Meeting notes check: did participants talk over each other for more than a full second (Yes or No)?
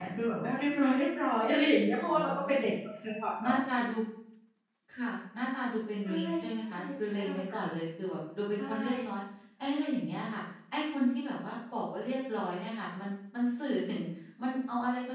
No